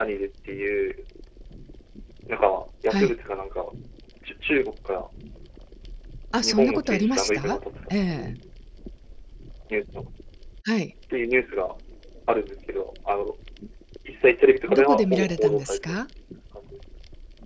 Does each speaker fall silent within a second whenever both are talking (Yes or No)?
No